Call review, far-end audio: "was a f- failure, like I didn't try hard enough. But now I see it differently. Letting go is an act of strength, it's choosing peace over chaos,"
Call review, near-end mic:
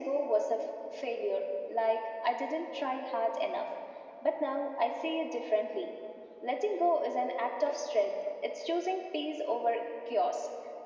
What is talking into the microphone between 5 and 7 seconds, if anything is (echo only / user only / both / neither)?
echo only